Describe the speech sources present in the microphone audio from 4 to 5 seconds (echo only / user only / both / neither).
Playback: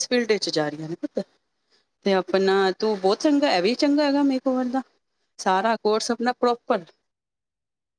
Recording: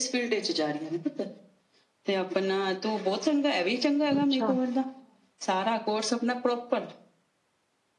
both